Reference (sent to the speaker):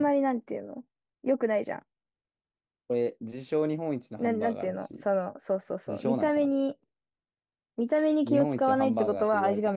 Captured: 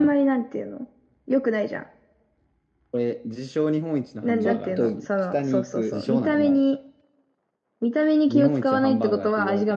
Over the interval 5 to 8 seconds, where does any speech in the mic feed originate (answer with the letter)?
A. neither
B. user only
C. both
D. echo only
C